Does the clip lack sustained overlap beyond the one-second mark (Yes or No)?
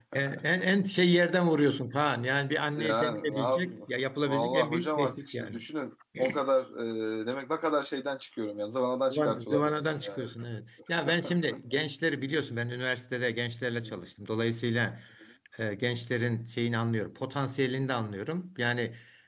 No